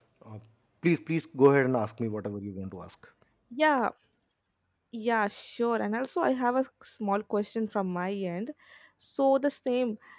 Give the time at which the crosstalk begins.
none

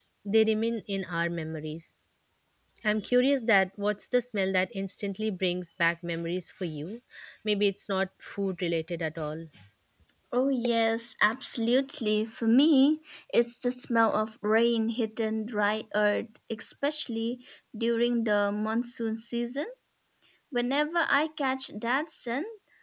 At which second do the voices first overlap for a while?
none

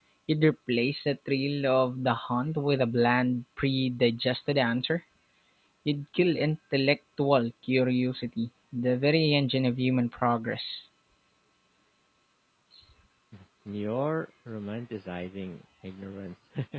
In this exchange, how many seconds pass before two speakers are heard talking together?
none

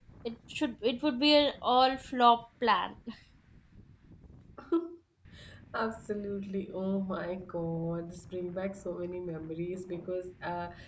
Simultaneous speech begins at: none

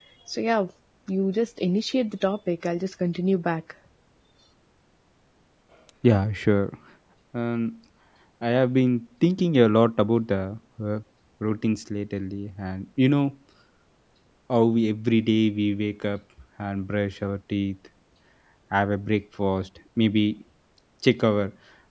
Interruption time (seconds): none

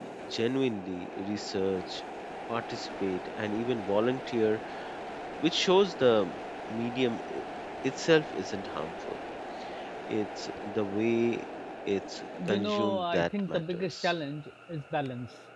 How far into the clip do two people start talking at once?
12 s

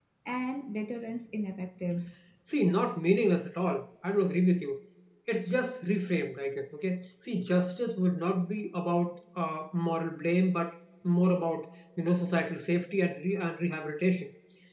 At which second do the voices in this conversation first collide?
none

